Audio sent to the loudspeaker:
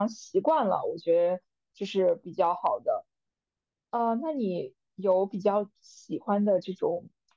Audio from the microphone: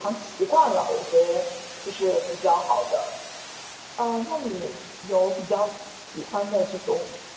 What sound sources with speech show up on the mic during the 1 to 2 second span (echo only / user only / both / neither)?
echo only